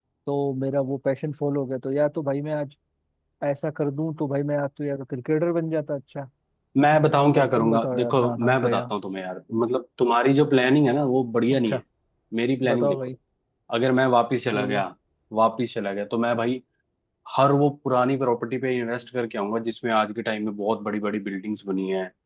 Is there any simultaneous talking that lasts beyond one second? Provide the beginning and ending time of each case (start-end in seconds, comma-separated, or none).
7.3-8.8